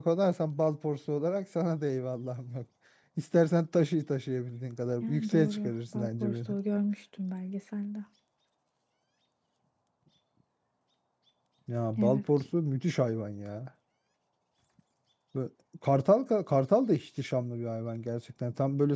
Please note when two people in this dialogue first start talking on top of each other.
5.0 s

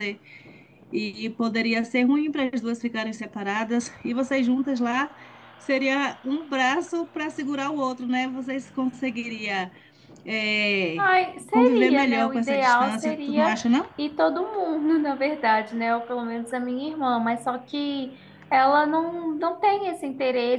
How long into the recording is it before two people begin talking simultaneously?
11.5 s

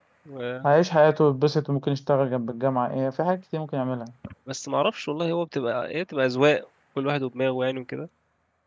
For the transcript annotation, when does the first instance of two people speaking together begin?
none

